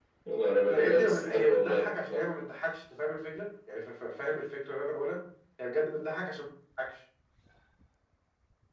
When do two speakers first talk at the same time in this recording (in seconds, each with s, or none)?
0.7 s